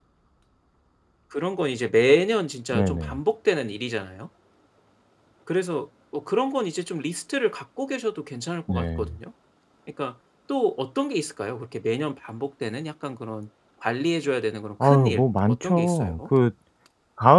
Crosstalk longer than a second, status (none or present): present